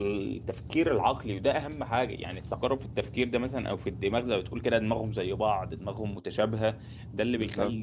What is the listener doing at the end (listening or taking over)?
listening